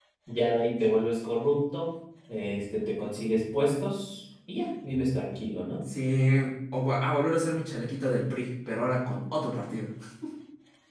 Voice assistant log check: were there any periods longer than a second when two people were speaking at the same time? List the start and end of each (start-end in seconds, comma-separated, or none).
none